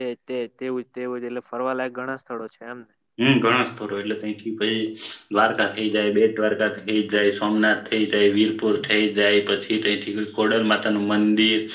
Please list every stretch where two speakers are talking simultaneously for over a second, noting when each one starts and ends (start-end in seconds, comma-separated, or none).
none